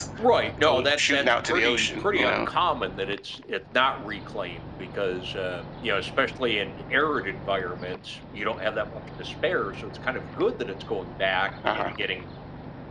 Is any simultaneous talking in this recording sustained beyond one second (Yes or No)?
Yes